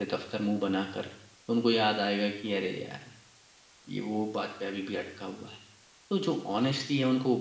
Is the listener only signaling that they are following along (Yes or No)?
Yes